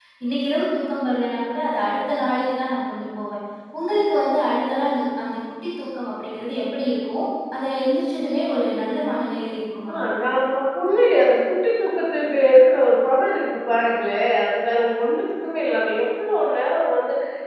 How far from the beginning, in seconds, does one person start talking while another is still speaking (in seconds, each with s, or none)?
none